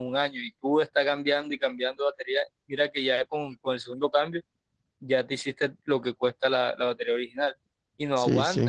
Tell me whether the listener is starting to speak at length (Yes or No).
No